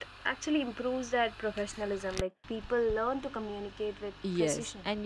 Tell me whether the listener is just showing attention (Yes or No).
No